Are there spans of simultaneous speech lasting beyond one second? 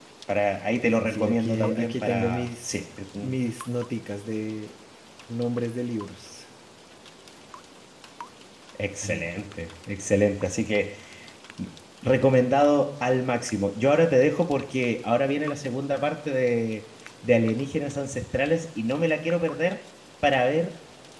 Yes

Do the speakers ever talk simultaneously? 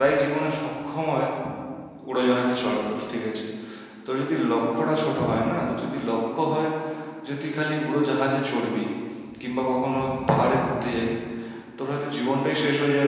No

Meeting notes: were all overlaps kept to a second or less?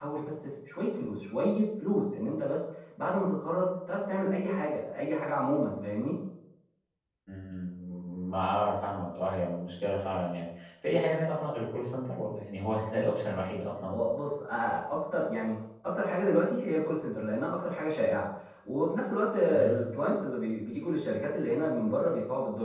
Yes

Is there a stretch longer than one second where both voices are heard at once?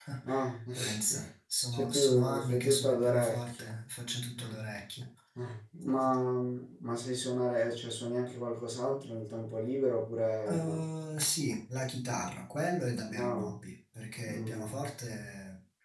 Yes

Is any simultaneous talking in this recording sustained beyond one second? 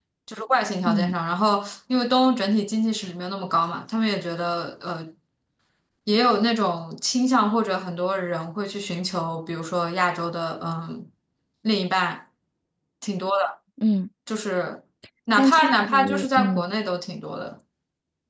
Yes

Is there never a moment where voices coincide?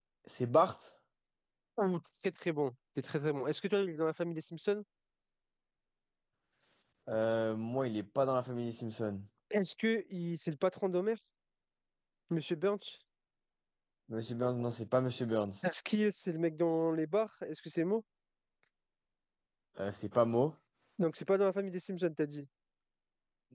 Yes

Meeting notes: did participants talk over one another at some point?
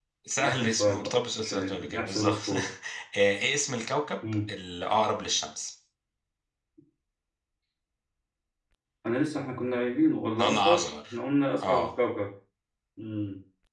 Yes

